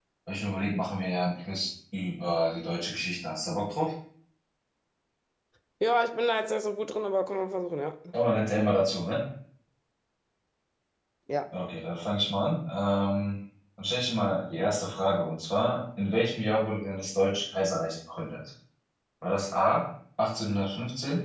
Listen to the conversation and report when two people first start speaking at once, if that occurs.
none

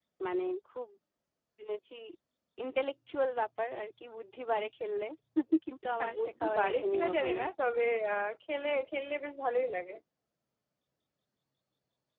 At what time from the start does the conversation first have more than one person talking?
6.0 s

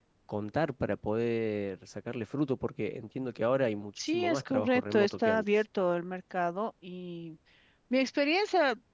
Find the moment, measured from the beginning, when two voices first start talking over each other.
4.0 s

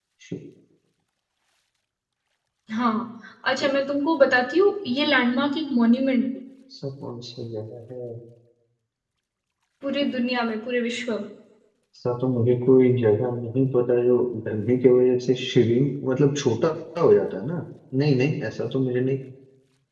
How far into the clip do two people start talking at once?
none

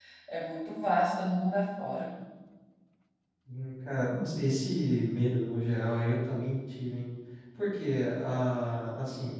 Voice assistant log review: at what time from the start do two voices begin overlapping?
none

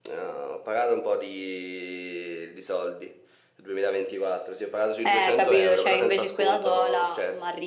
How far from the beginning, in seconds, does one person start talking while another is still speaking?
5.0 s

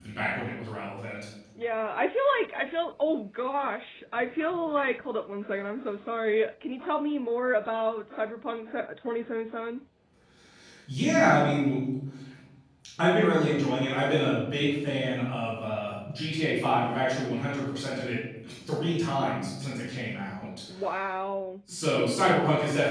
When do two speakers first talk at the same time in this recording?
none

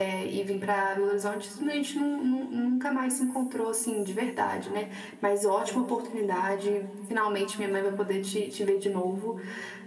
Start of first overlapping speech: none

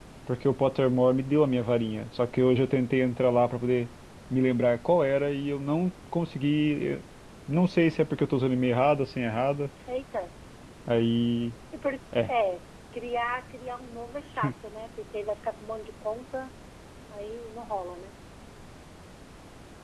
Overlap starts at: none

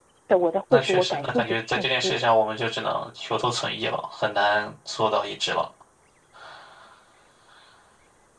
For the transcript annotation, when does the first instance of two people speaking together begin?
0.7 s

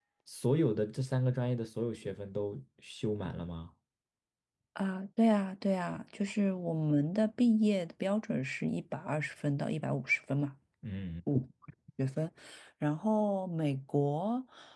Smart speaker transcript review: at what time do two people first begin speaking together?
none

